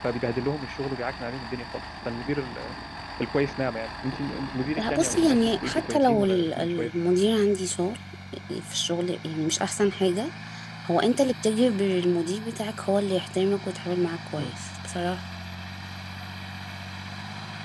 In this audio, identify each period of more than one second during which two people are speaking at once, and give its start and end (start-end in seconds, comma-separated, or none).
4.8-6.9